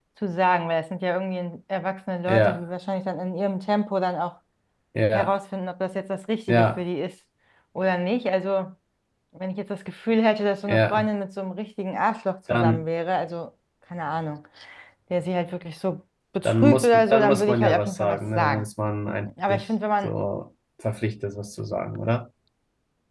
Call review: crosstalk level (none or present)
present